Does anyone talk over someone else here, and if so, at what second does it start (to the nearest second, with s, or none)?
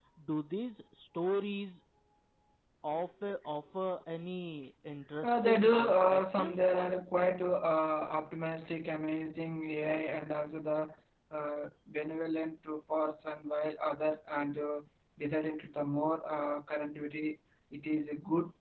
5 s